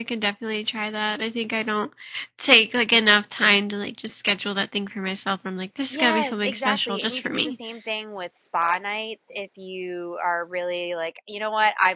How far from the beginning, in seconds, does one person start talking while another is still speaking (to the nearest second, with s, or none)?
6 s